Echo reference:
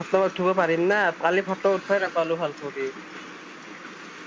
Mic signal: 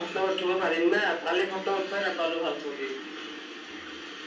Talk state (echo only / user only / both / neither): echo only